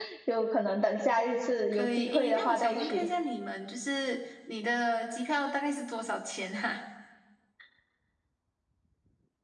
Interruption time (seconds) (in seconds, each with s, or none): 1.7 s